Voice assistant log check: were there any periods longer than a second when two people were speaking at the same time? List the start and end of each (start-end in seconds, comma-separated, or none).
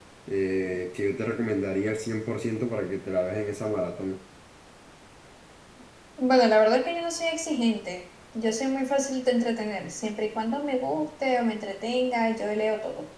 none